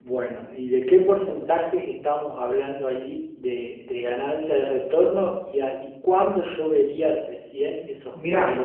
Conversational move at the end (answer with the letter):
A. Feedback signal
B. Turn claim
B